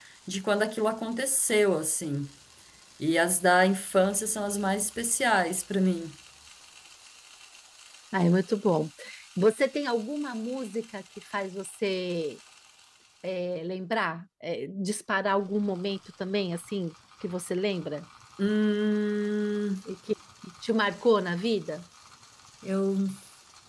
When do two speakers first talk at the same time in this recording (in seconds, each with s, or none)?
none